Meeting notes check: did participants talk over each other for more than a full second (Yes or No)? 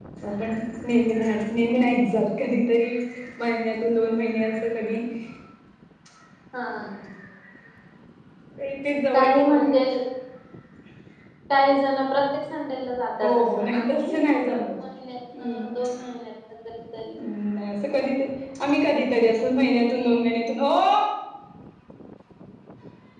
Yes